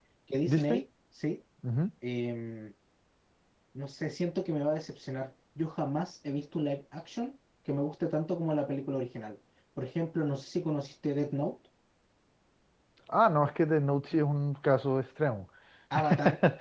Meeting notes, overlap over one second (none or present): none